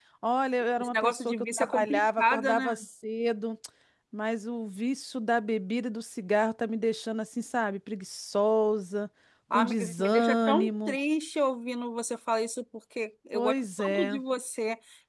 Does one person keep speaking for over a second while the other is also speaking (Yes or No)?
Yes